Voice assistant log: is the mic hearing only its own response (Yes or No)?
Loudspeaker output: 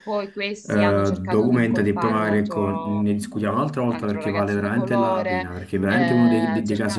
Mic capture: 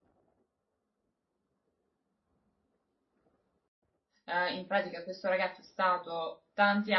No